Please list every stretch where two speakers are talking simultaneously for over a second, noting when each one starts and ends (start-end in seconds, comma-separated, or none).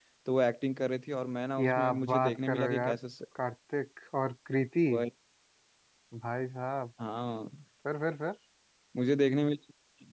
1.6-2.9